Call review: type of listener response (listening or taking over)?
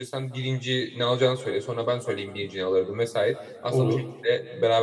listening